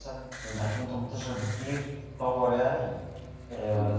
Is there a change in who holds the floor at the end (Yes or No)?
No